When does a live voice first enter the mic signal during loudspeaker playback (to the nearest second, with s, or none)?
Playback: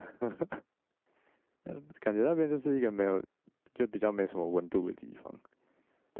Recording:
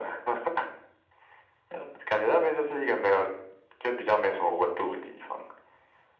none